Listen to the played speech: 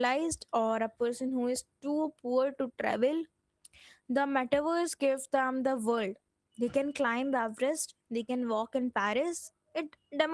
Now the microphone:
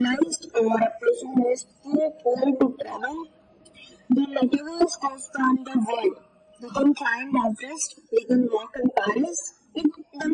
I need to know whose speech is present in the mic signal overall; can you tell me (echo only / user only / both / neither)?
echo only